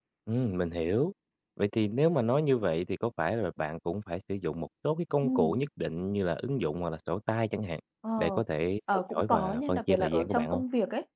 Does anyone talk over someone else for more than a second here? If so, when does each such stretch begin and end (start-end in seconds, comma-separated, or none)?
9.1-10.6